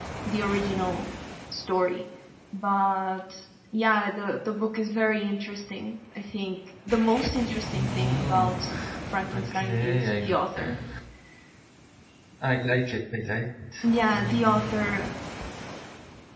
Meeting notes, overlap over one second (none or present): present